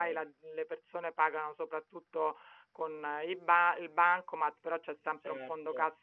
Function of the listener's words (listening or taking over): listening